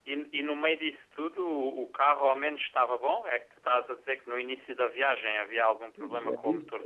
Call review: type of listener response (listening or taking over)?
taking over